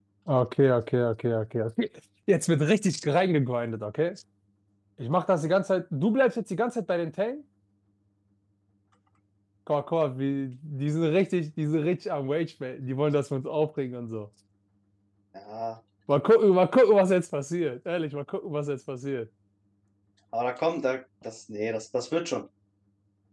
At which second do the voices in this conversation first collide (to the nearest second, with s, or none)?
none